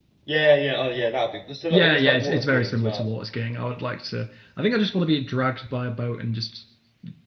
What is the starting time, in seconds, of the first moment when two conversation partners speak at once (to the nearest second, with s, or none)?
2 s